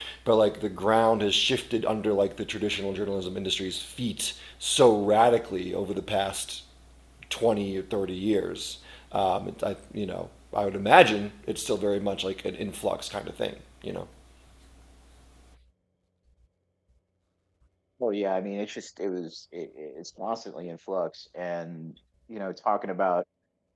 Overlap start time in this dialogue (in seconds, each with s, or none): none